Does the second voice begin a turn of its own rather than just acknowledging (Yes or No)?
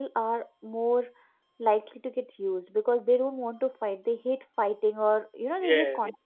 Yes